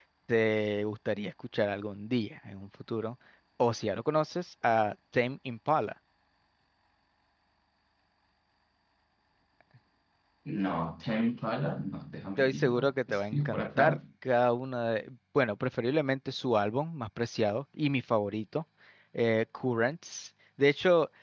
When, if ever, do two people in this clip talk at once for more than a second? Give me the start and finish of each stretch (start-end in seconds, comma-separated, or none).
12.4-14.0